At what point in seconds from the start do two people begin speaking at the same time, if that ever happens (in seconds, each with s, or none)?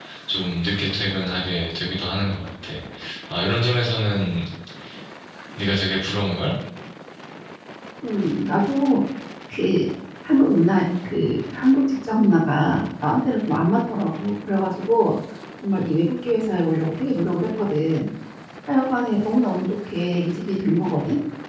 none